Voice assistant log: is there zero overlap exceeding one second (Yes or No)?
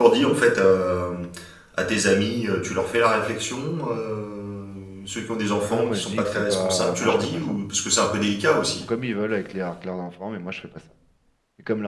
No